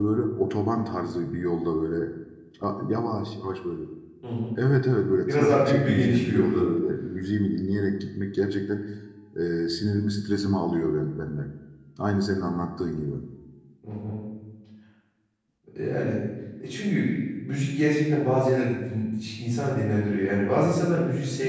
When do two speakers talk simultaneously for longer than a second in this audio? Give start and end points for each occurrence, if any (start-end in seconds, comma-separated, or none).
5.3-6.6